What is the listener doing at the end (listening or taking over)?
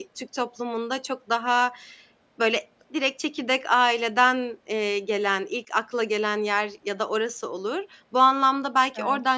listening